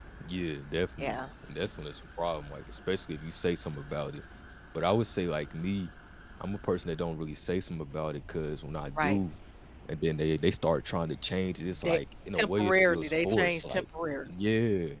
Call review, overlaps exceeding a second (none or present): present